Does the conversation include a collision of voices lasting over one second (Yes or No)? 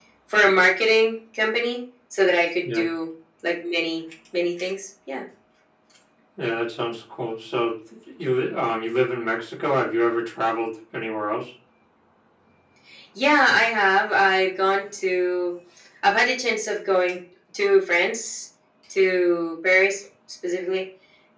No